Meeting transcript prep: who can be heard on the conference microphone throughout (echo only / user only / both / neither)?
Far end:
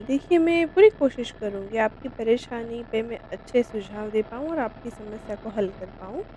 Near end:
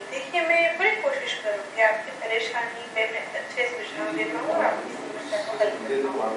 both